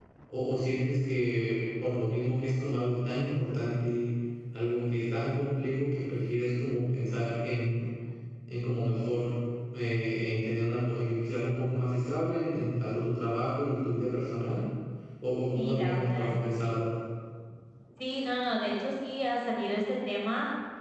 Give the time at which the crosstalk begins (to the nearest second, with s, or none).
16 s